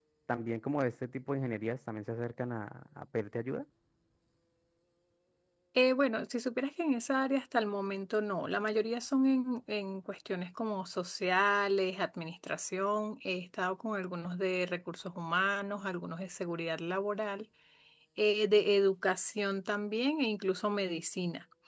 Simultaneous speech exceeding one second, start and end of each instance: none

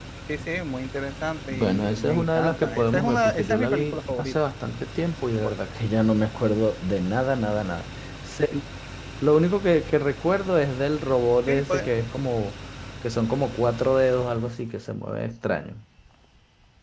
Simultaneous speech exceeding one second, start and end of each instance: 1.5-4.3

